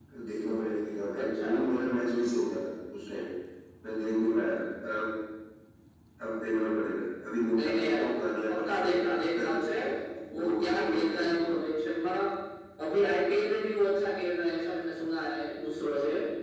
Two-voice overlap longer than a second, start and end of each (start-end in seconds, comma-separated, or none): 10.3-11.6